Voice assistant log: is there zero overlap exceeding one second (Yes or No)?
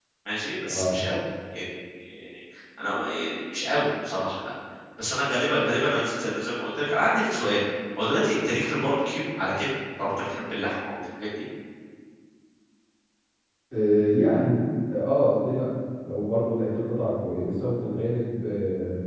Yes